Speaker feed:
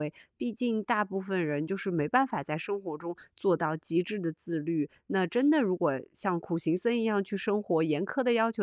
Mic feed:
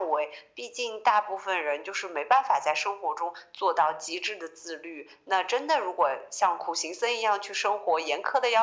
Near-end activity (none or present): none